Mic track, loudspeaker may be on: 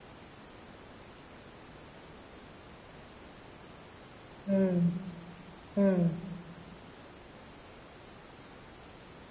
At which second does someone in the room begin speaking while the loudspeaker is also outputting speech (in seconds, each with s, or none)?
4.4 s